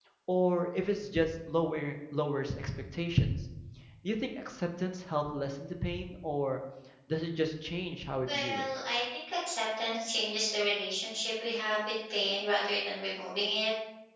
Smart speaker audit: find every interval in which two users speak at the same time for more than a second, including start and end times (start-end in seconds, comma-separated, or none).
none